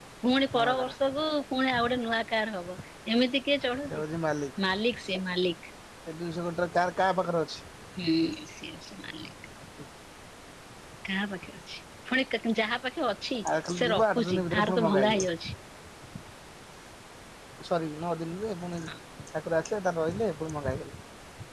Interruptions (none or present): present